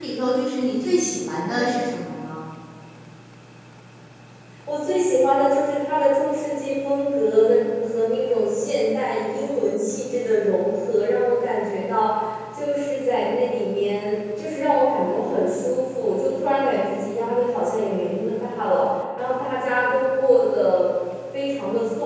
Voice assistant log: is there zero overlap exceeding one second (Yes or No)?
Yes